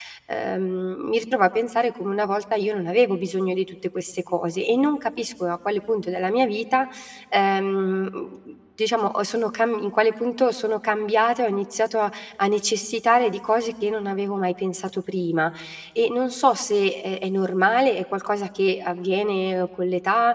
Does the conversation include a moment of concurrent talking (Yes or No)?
No